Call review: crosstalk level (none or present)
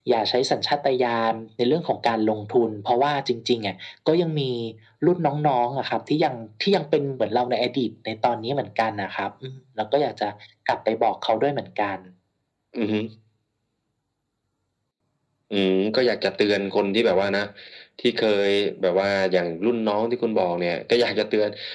none